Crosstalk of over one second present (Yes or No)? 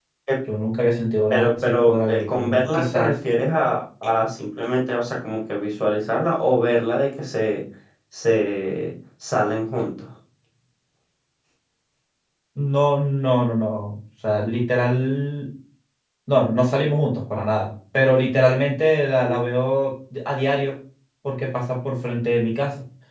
Yes